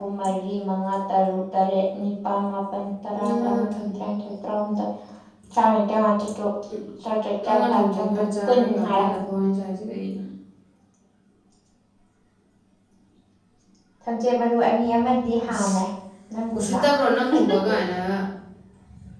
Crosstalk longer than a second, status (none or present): present